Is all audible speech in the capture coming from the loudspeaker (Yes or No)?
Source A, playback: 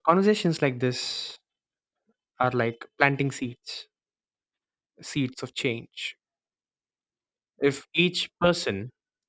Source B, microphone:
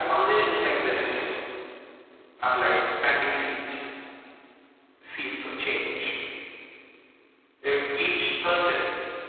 Yes